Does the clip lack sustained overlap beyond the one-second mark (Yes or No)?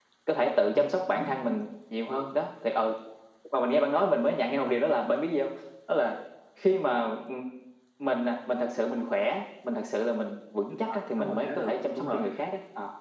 No